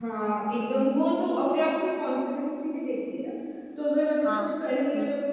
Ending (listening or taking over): listening